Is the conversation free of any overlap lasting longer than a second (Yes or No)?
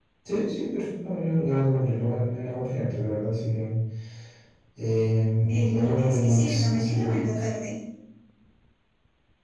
No